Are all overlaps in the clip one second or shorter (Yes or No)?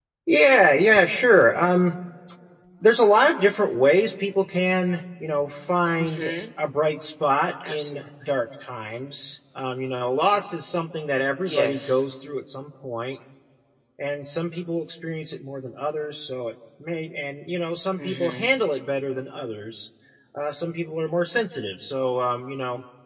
Yes